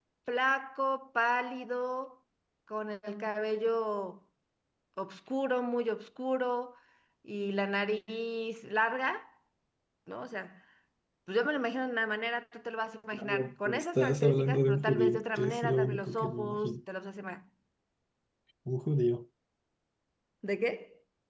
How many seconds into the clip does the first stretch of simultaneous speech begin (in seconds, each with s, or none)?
13.1 s